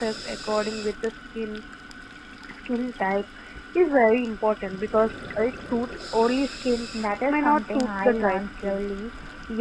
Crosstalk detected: Yes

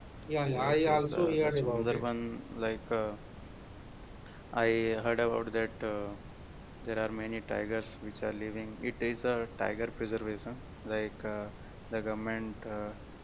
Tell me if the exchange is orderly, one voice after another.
No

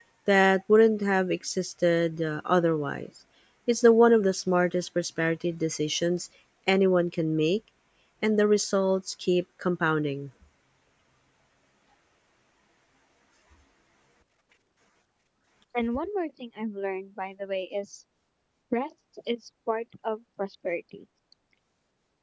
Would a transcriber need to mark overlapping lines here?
No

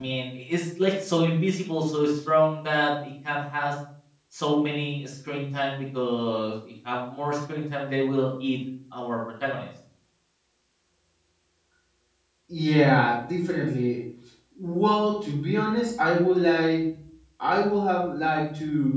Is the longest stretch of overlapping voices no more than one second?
Yes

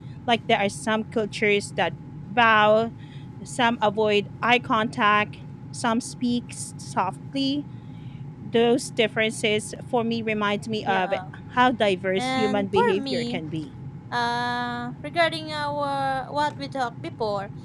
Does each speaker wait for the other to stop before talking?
No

